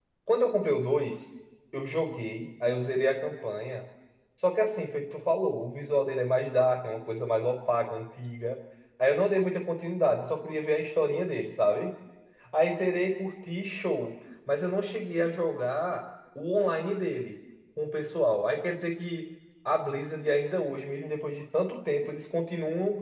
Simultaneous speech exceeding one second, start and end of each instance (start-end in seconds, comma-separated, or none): none